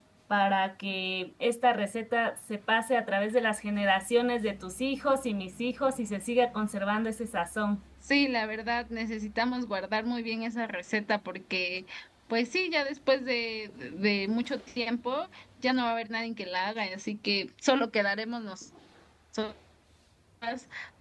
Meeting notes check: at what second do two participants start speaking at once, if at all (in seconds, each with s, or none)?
none